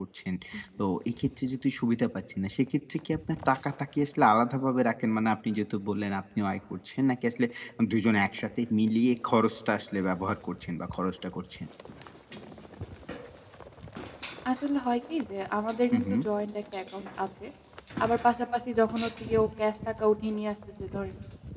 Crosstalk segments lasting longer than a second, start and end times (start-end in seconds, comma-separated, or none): none